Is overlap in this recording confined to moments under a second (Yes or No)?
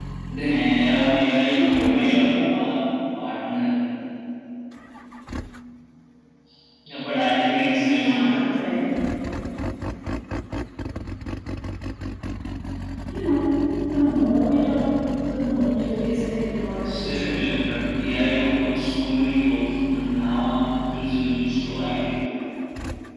No